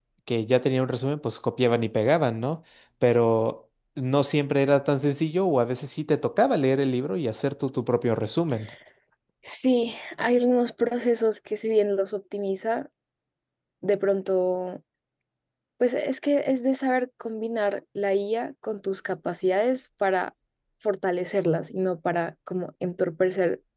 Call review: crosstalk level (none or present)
none